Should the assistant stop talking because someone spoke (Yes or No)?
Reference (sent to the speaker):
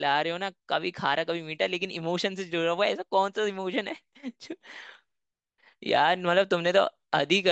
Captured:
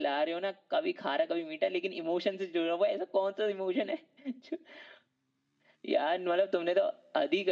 No